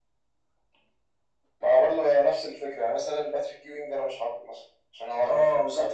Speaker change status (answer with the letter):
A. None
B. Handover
B